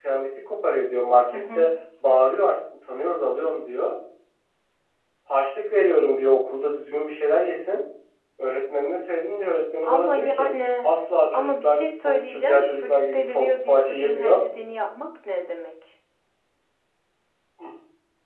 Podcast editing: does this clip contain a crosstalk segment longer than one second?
Yes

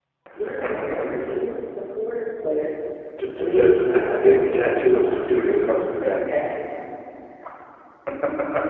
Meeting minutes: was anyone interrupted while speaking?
Yes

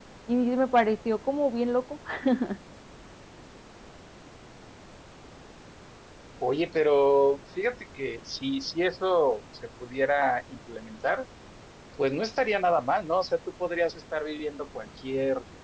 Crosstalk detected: No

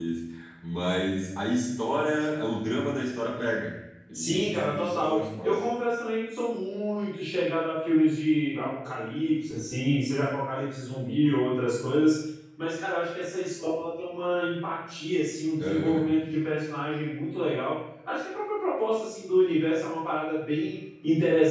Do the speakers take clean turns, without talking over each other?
No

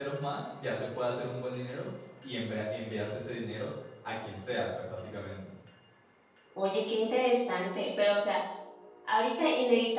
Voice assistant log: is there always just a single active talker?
Yes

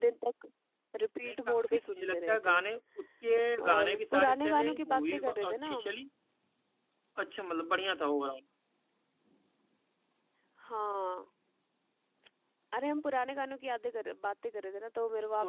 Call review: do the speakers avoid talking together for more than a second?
No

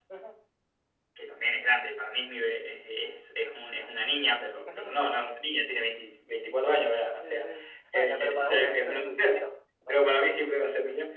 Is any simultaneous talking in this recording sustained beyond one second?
Yes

